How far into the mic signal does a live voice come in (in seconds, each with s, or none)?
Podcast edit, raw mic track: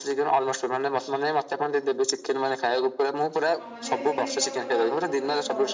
3.6 s